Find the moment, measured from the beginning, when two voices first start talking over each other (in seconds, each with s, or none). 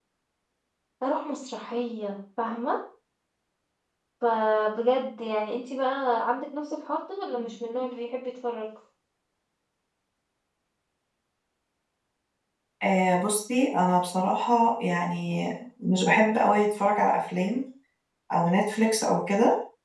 none